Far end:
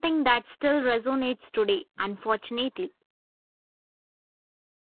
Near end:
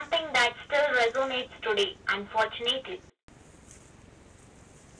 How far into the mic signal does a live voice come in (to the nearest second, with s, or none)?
none